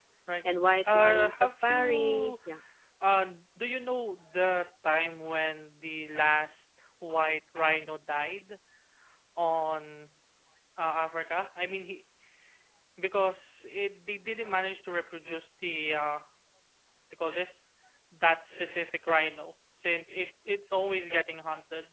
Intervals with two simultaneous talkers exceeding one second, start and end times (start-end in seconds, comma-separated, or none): 0.9-2.3